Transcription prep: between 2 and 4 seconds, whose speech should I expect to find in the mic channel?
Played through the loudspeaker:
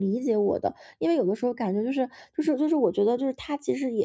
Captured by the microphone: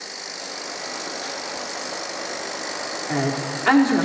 user only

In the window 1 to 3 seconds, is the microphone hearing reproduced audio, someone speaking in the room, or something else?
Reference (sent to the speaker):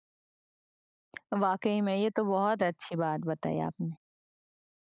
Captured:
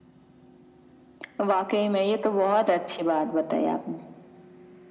echo only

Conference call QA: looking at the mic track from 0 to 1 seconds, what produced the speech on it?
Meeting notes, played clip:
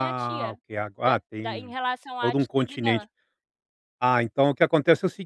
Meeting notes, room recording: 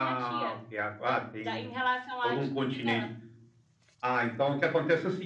echo only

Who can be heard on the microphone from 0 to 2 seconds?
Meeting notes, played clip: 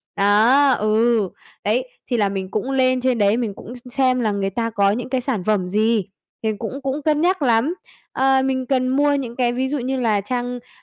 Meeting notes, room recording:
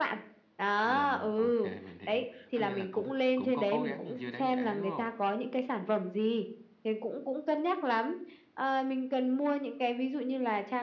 both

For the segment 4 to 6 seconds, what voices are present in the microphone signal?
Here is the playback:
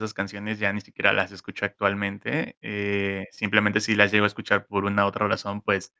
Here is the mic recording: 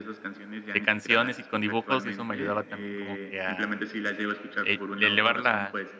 both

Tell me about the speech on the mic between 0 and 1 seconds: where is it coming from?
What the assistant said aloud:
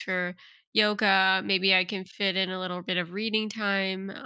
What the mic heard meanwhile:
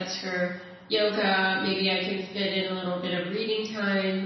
echo only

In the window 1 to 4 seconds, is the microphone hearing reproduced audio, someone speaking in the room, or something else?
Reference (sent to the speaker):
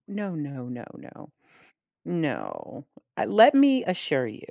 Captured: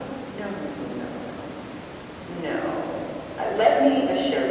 echo only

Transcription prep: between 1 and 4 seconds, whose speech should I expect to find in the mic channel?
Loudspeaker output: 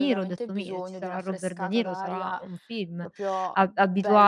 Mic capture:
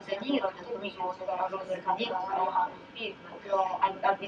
echo only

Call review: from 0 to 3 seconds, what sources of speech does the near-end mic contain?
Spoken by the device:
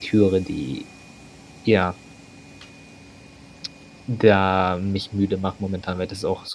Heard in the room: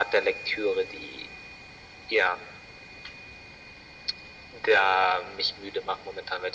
echo only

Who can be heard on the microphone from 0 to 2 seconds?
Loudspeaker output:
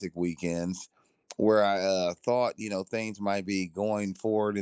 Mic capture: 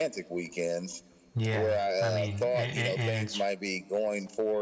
both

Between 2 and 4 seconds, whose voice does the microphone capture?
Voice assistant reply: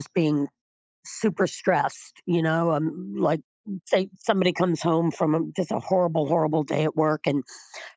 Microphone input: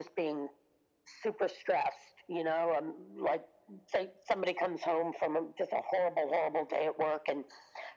echo only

